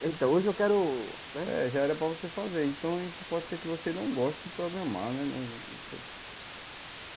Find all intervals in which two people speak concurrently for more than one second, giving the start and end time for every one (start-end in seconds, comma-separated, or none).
none